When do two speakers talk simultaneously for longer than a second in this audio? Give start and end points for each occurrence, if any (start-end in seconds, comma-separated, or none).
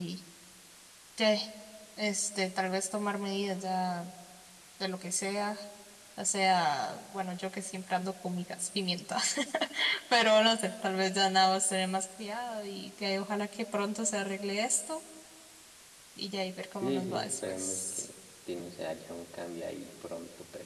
16.8-18.1